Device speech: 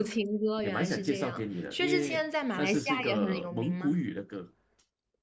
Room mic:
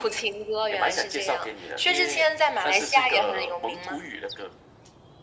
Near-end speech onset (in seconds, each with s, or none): none